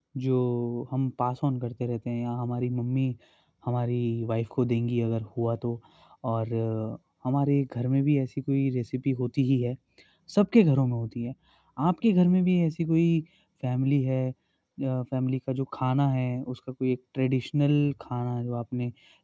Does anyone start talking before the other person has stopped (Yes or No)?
No